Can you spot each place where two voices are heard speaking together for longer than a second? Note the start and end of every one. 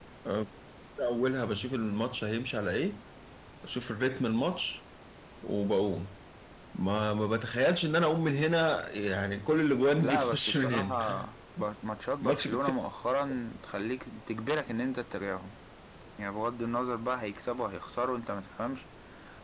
10.0-11.3

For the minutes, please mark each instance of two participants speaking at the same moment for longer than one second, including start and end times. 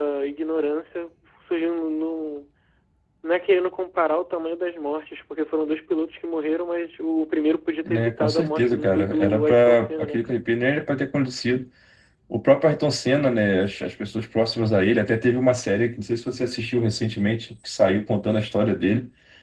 7.8-10.4

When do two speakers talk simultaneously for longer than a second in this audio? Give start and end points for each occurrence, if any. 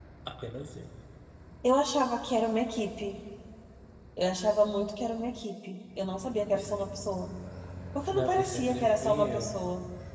8.1-9.6

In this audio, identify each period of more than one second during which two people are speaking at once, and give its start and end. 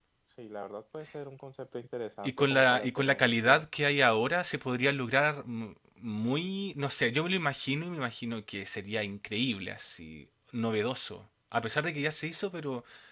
2.2-3.6

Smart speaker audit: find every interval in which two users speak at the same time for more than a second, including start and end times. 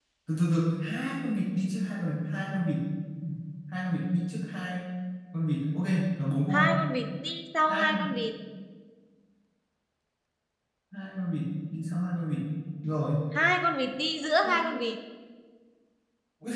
none

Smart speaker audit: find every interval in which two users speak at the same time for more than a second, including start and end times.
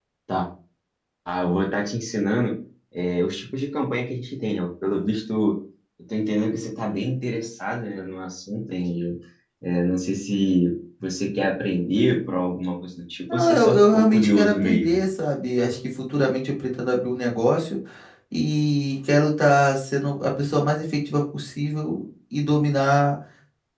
13.3-15.0

